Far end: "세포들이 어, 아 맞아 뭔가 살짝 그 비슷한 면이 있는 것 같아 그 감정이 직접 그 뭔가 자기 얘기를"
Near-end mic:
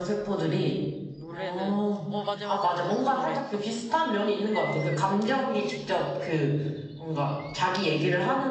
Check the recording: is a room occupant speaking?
Yes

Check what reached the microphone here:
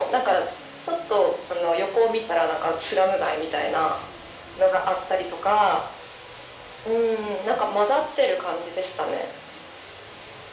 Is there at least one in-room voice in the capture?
No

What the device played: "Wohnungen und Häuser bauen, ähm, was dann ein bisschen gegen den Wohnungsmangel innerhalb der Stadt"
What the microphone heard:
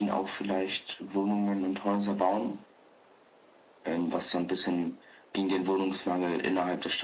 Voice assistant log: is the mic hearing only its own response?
Yes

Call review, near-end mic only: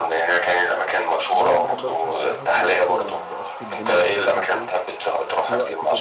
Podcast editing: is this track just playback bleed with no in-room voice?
No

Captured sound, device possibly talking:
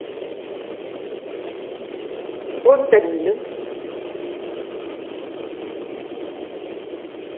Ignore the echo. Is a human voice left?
Yes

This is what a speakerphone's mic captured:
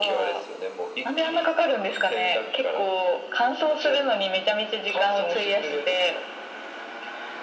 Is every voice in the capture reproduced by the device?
Yes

